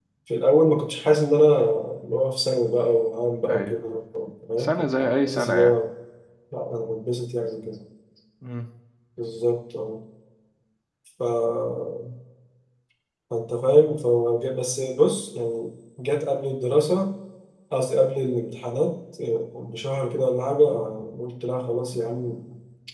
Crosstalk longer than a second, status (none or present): present